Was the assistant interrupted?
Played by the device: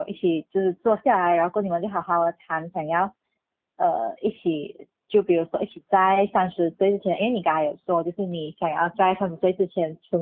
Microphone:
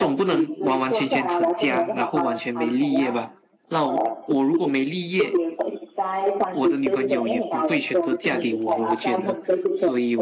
Yes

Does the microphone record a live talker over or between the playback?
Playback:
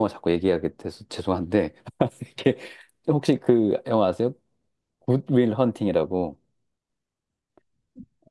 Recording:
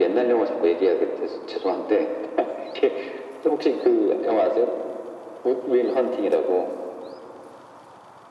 No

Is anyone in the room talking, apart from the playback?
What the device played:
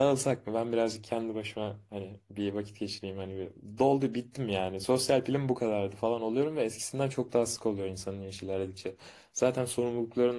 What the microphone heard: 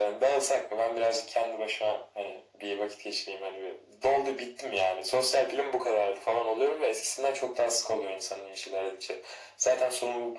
No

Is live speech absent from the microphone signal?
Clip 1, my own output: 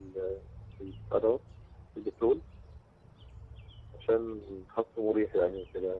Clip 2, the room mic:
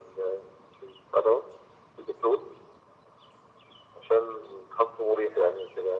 Yes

